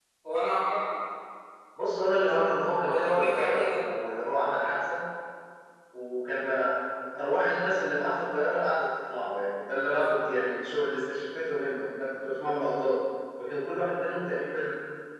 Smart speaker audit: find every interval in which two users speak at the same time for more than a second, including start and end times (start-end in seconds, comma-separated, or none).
2.3-3.9